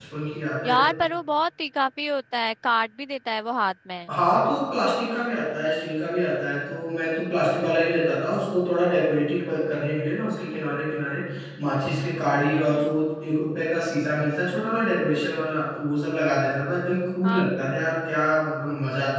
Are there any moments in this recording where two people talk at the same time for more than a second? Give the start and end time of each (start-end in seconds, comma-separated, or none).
none